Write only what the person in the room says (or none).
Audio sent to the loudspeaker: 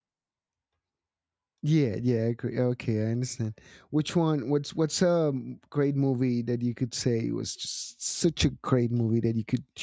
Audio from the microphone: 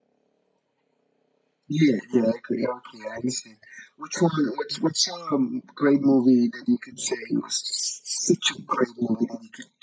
none